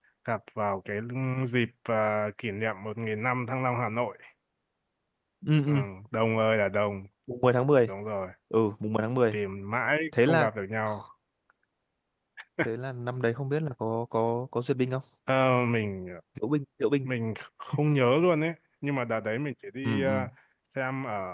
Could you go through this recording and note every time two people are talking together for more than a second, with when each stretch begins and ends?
none

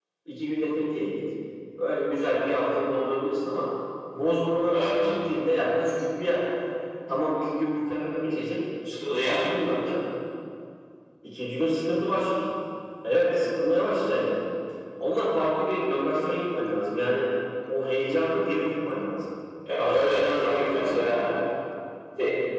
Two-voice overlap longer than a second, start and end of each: 19.8-21.2

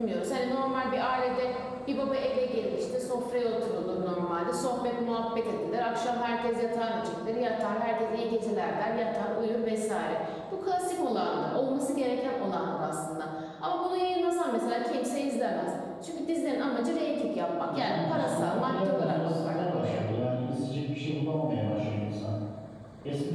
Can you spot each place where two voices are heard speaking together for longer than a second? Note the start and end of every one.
17.7-20.0

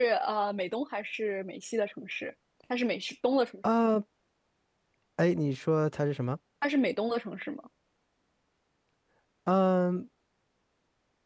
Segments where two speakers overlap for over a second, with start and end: none

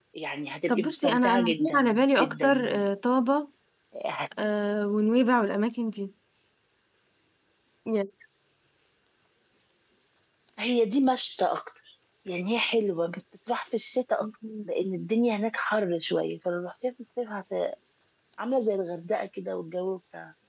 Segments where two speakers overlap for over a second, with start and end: 0.7-2.7

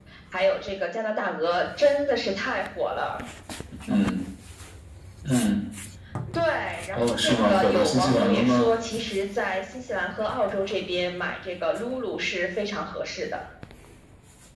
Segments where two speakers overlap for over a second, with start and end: 6.9-8.7

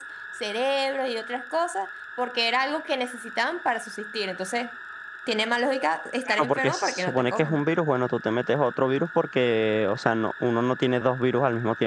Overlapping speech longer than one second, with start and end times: 6.3-7.6

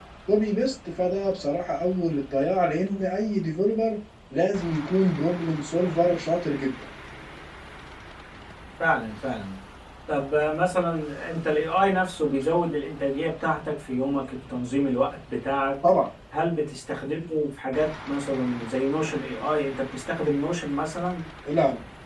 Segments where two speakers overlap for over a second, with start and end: none

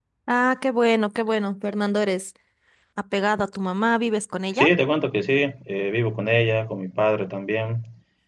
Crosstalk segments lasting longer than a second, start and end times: none

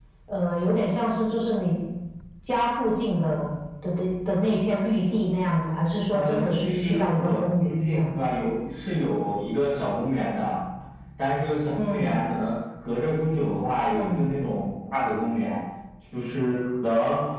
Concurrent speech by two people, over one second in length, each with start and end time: 6.1-8.1

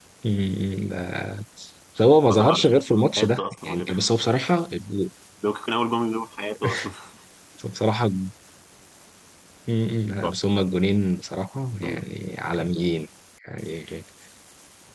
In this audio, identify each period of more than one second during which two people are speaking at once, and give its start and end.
2.3-4.0

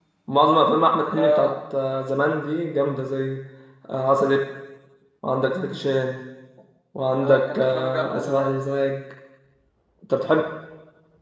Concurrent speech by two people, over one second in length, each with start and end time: 7.2-8.6

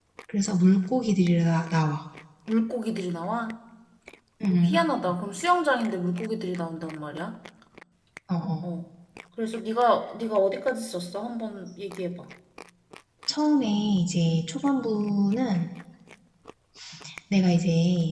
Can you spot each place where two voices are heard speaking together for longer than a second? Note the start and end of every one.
none

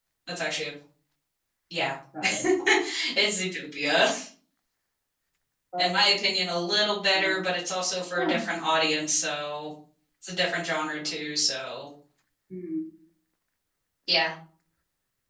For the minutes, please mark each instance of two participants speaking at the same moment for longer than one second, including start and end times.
none

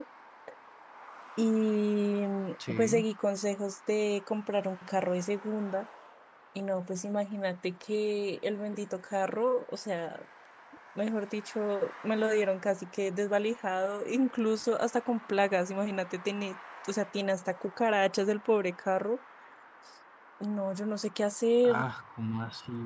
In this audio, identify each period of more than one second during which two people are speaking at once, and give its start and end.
none

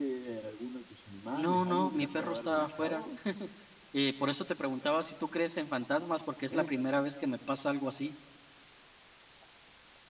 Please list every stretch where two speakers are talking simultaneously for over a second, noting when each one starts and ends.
1.3-3.0

